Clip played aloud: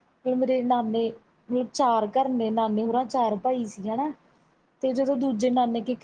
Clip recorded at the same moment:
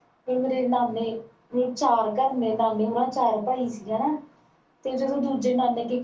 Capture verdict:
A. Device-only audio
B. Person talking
A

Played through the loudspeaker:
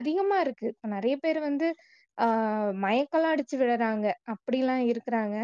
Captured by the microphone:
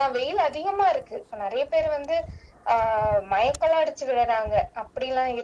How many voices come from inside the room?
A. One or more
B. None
B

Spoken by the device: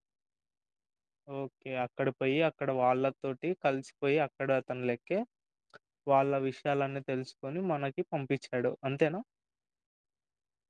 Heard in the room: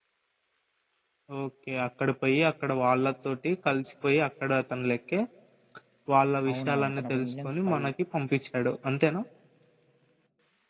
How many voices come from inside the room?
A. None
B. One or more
B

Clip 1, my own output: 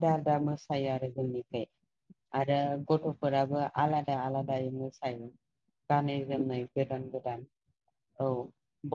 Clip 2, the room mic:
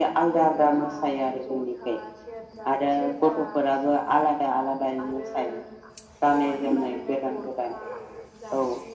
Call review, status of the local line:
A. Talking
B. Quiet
A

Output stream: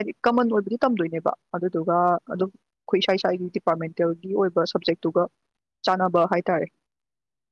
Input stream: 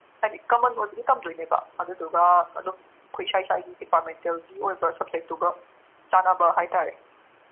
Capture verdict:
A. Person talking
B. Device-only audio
B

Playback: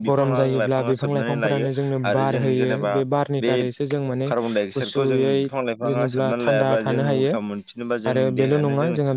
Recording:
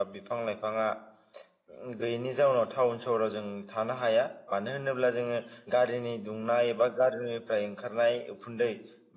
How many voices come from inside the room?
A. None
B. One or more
B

